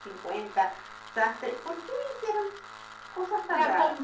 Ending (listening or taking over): taking over